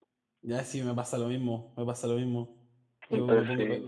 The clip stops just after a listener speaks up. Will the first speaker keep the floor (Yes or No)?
Yes